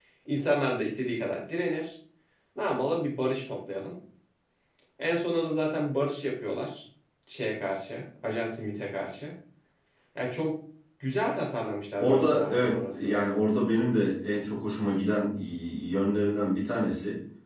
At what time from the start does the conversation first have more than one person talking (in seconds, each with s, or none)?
12.0 s